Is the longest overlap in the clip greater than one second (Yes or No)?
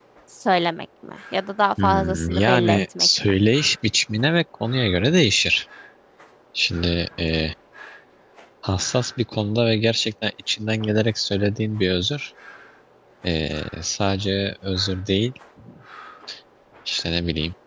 Yes